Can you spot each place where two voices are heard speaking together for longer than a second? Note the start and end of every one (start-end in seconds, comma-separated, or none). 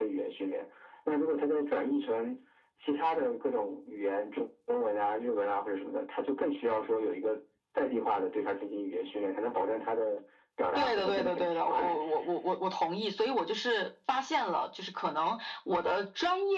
10.8-12.0